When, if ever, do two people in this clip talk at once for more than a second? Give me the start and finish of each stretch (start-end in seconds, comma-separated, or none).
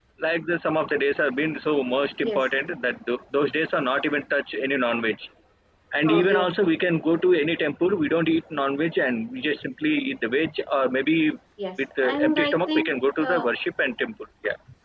12.0-13.4